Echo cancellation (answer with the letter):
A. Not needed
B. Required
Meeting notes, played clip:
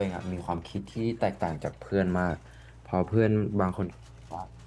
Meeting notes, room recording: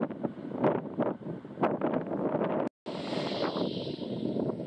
A